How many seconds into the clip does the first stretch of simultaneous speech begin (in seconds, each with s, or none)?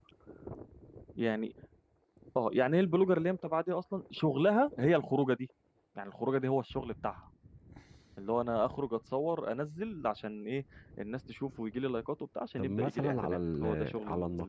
12.6 s